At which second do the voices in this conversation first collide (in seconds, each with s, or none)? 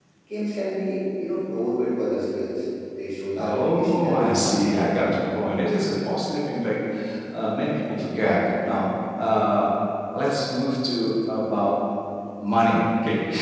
3.4 s